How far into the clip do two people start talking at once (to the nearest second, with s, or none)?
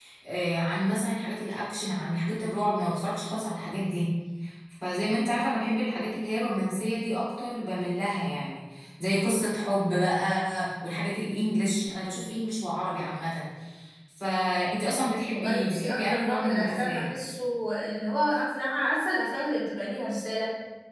15 s